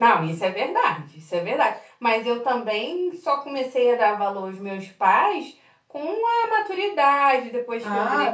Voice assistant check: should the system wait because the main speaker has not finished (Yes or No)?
No